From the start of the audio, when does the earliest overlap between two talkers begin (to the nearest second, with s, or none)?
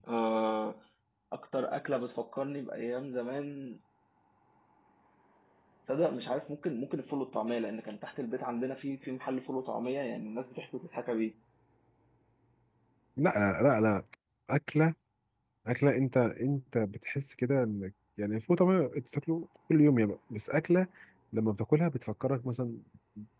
none